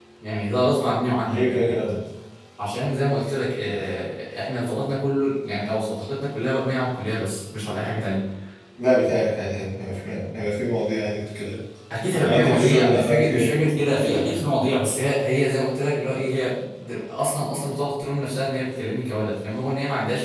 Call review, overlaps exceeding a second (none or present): present